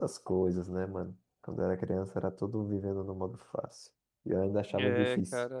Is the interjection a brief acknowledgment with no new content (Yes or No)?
No